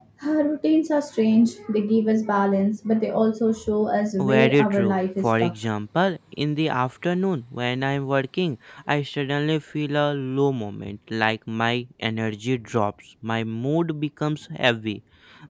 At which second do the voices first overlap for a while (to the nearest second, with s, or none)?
4 s